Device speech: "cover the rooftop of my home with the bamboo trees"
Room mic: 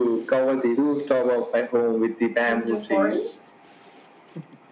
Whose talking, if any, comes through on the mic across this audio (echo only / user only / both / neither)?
both